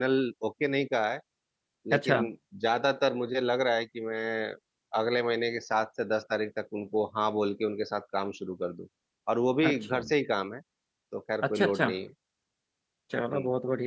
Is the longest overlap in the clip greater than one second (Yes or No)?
No